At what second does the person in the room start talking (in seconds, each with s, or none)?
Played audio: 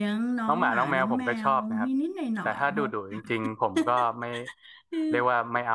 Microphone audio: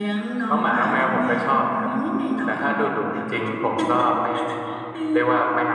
none